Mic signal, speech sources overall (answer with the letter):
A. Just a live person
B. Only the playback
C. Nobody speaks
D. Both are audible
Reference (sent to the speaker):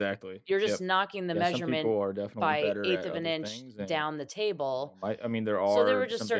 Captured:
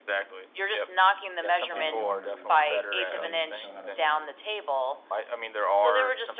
D